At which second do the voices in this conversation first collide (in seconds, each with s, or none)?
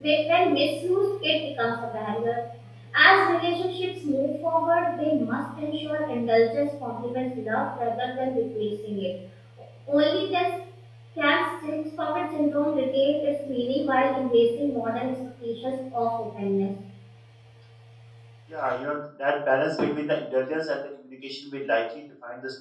none